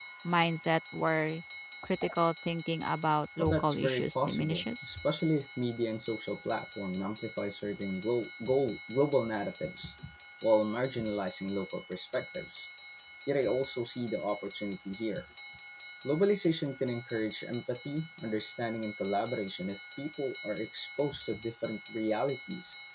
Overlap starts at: 3.4 s

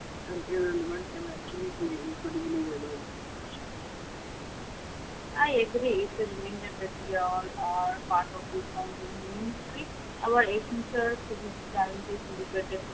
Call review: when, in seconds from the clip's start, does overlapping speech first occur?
none

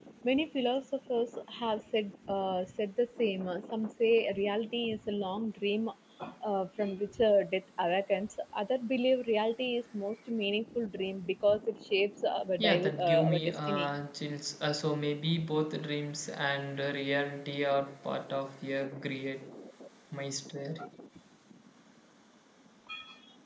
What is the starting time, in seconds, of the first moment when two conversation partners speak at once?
12.6 s

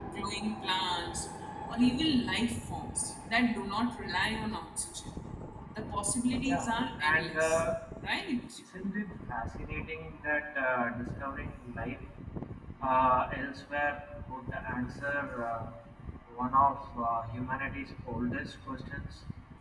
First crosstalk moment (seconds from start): 6.4 s

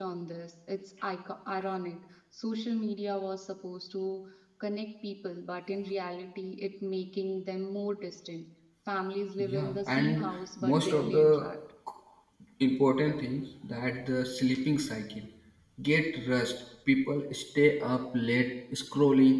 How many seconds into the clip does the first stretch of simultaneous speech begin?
9.4 s

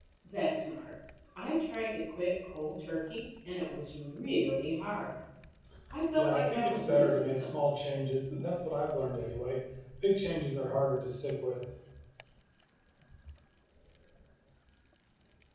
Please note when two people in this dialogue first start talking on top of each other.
6.2 s

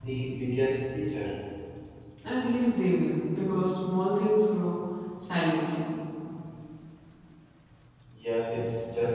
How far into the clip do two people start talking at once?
none

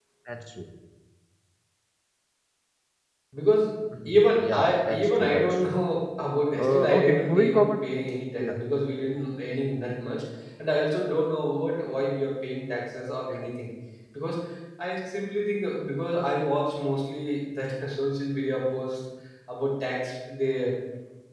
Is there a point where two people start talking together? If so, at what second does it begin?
4.1 s

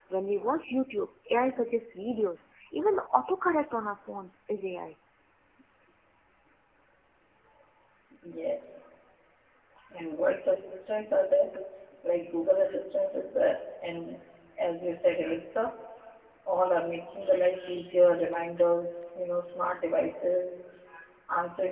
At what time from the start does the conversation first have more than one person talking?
none

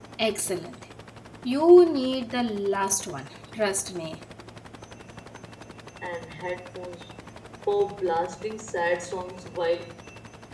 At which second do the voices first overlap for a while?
none

